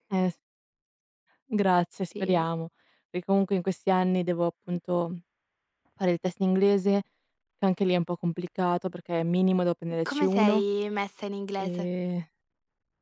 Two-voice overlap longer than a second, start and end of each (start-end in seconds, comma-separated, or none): none